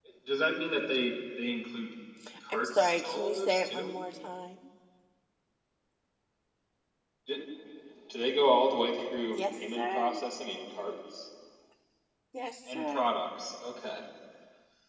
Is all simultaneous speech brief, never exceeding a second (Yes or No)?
No